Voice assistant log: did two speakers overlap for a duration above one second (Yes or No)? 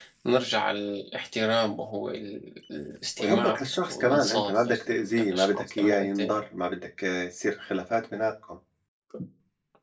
Yes